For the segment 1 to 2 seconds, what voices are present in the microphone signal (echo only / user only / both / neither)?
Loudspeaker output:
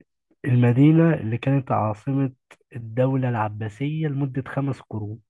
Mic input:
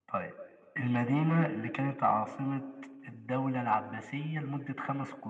echo only